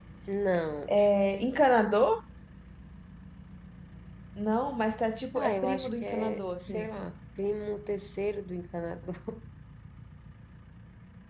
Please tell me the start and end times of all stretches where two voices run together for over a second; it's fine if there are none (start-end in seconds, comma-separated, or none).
5.3-6.9